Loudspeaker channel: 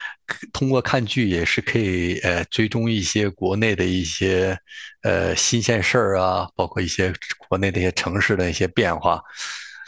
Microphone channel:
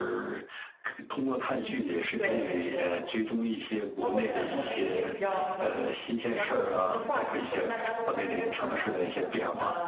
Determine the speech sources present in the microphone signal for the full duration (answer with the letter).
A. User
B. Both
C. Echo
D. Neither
B